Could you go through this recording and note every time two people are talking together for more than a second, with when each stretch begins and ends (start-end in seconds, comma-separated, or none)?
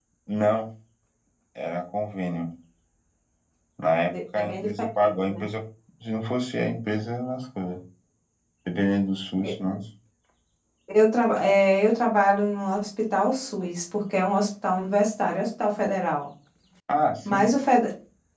4.1-5.4